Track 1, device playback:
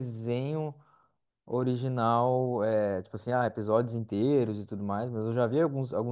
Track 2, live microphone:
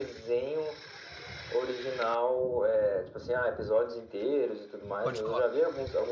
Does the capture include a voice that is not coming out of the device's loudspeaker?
Yes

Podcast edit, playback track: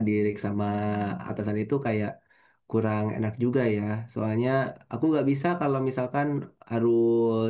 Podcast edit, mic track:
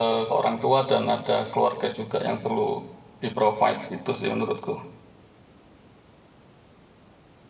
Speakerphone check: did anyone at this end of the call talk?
Yes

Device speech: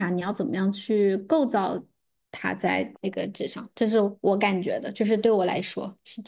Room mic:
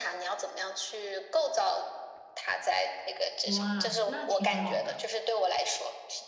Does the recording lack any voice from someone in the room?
No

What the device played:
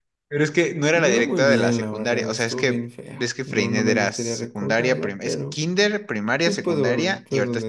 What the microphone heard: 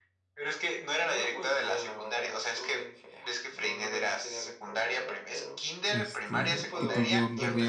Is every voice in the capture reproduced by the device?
No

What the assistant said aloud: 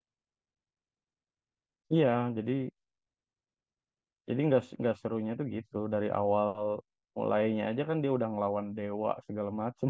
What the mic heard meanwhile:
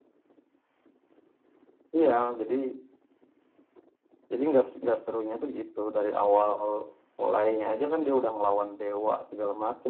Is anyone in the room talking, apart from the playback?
No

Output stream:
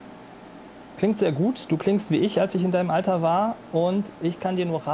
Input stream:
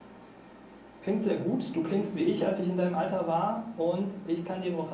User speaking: No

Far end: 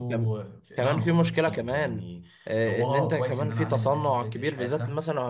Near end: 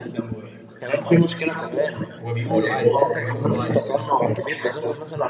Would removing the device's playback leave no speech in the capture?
No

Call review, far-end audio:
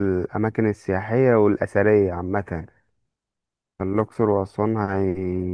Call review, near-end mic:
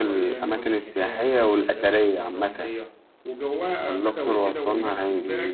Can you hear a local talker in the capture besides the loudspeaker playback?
Yes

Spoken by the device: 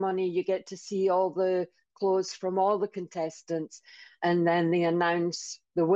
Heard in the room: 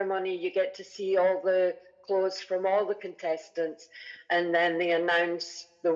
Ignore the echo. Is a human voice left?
No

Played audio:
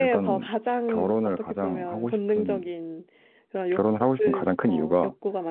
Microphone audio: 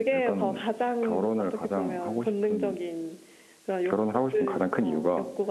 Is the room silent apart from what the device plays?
Yes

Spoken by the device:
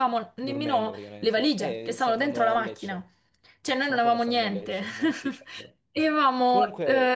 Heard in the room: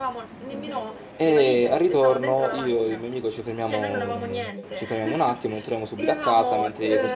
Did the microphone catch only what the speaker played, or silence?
No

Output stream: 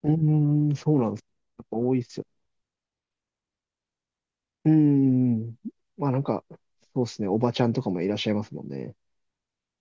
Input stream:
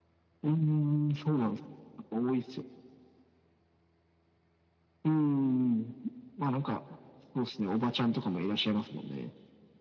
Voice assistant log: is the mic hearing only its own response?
Yes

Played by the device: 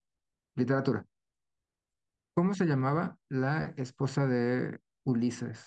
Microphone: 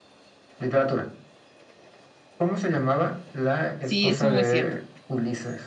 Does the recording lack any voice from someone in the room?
No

